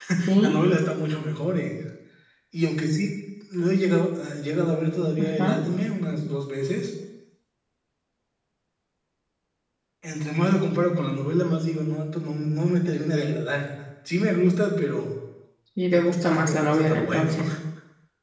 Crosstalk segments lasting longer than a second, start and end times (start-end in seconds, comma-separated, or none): 15.9-17.3